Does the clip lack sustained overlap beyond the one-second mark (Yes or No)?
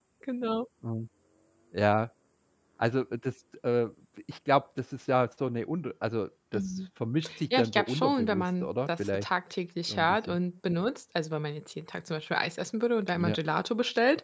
No